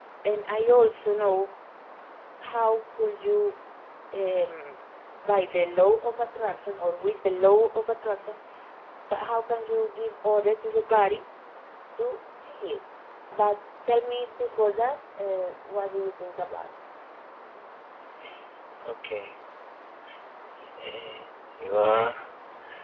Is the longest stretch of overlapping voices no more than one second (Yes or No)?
Yes